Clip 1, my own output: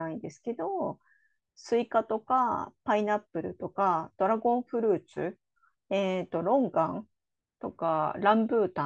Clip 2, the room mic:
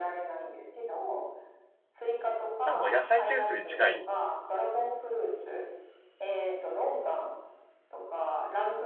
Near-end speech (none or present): present